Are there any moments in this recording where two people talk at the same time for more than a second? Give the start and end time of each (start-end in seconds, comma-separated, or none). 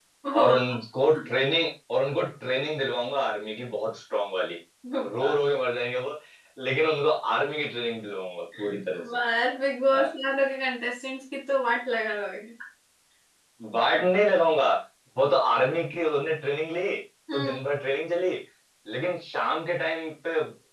none